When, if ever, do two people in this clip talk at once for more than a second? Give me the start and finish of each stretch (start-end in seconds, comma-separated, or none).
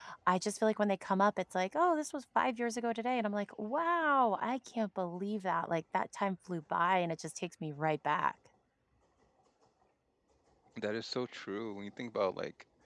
none